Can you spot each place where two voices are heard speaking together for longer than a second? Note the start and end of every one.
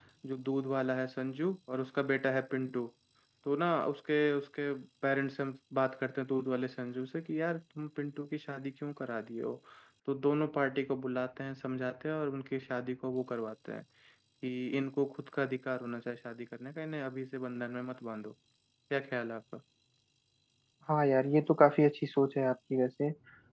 none

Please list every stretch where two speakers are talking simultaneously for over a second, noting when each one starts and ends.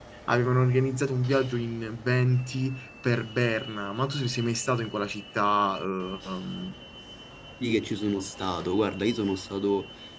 none

